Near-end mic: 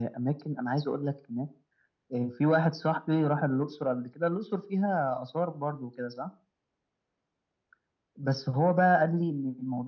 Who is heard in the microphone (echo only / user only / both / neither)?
echo only